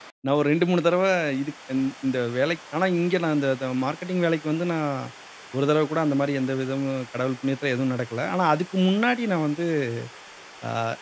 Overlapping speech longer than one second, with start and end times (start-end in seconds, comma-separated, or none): none